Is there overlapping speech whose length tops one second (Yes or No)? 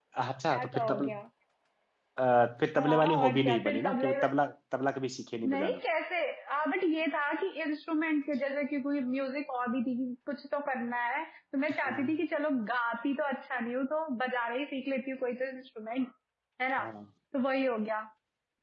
Yes